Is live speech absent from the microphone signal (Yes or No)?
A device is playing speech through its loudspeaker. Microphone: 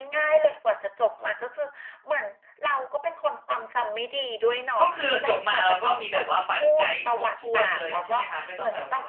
No